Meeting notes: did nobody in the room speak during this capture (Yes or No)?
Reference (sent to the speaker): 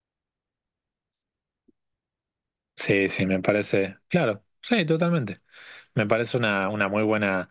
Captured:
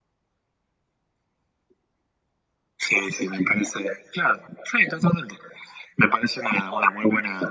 Yes